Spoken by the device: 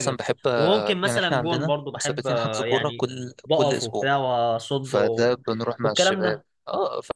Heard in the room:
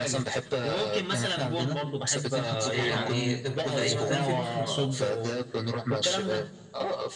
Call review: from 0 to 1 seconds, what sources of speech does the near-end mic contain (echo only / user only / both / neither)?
echo only